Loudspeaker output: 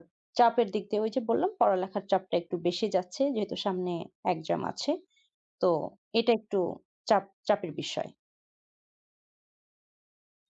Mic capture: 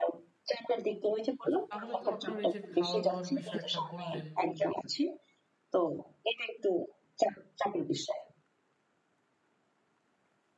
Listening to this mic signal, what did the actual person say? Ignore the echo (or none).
আচ্ছা, তাহলে তো আপনার এই যে খাওয়া-দাওয়ার বিষয় একটা বললেন